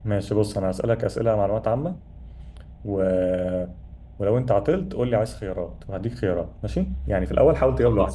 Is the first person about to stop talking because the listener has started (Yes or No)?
No